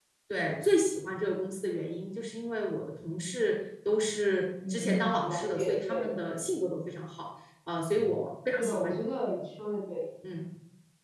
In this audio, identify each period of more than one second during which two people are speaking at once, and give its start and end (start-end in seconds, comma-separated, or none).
4.7-6.1